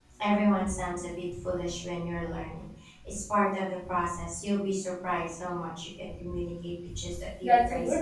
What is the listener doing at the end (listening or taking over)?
taking over